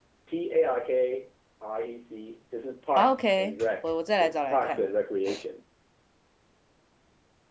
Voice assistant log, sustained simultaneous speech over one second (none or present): present